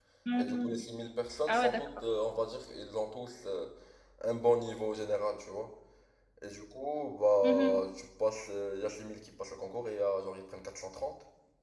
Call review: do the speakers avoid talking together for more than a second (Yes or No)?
Yes